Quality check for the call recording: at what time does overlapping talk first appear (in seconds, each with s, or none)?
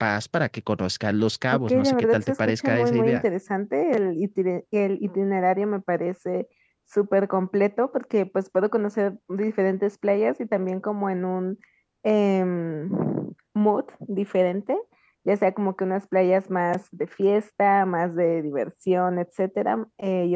1.5 s